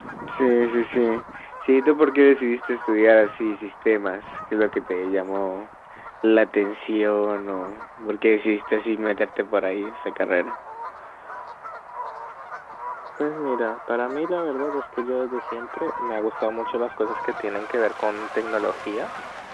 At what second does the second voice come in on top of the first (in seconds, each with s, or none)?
none